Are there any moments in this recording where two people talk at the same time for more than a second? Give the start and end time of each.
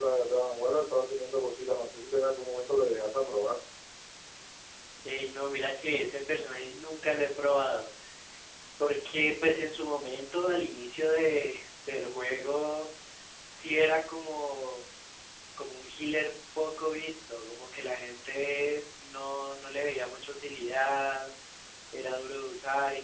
none

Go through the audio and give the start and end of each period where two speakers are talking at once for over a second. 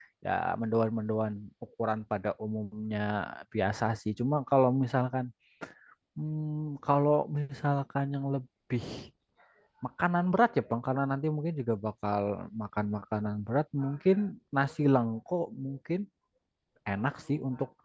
none

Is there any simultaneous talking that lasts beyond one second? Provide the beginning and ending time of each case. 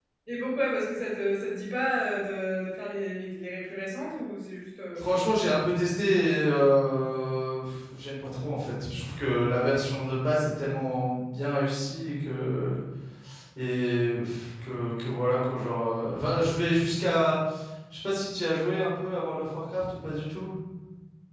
none

